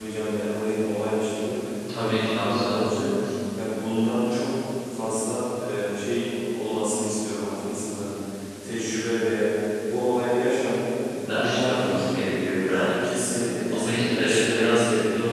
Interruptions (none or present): present